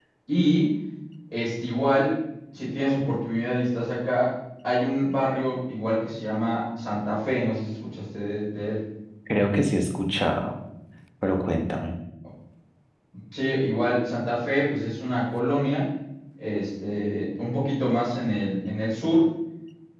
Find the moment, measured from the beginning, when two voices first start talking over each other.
none

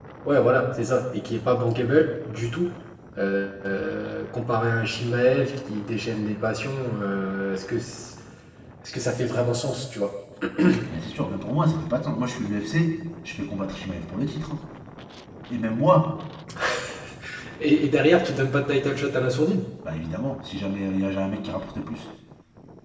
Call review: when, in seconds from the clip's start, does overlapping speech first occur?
none

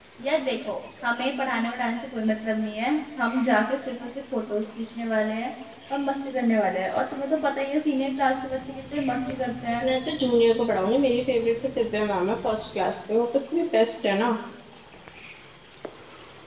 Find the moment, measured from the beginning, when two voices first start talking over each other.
none

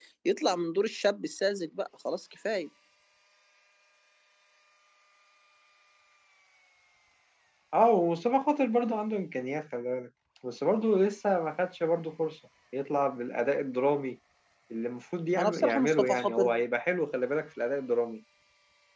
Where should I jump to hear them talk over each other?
15.4 s

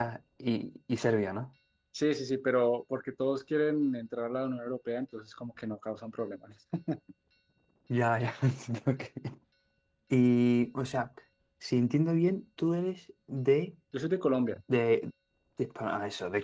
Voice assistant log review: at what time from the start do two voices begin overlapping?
none

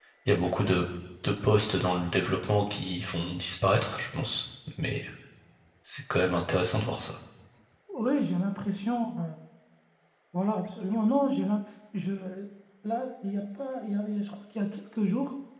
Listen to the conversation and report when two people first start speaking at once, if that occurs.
none

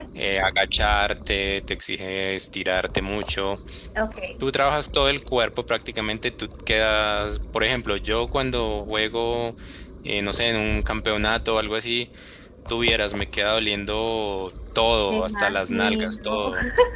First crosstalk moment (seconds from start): 15.1 s

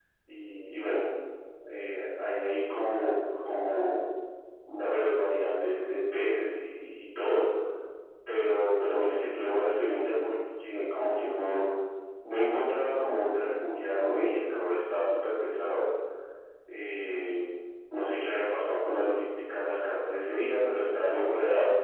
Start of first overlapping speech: none

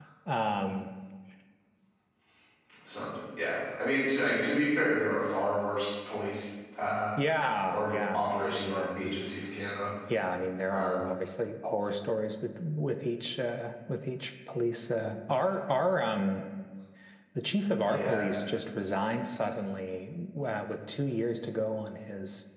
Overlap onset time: 7.7 s

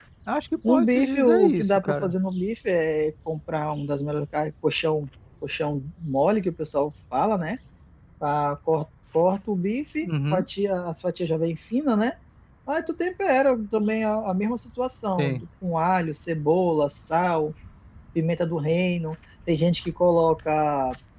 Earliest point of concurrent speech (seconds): 0.7 s

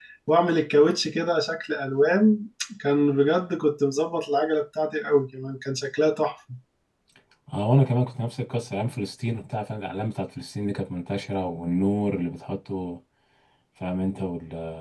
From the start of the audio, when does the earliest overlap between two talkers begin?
none

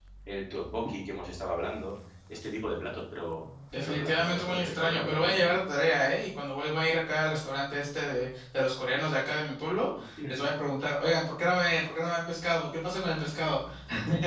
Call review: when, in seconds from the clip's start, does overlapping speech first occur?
3.7 s

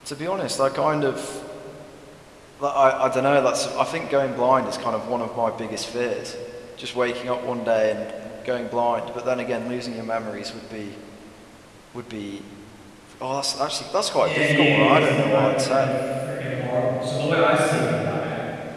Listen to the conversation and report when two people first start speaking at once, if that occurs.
14.2 s

